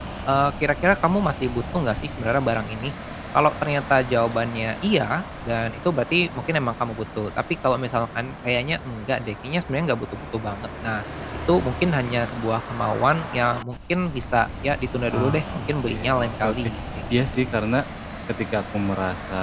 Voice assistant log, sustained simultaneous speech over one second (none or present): present